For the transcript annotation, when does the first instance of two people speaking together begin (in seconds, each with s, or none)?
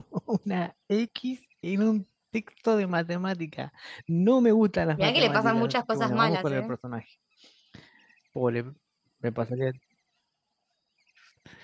5.0 s